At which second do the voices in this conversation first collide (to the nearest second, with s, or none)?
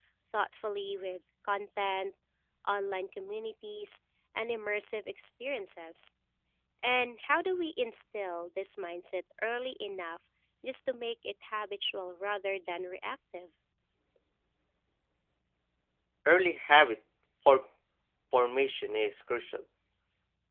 none